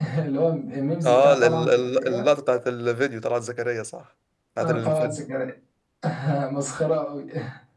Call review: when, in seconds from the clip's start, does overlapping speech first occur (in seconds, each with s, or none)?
1.0 s